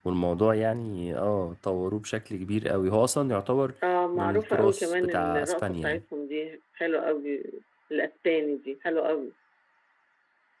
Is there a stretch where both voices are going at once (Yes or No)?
Yes